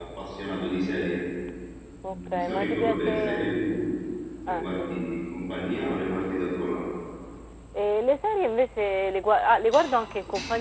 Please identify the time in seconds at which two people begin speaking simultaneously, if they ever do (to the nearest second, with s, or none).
2 s